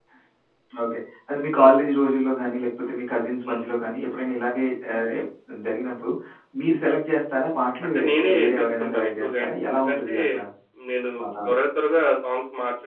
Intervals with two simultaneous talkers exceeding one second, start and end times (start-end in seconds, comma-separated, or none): 7.8-10.1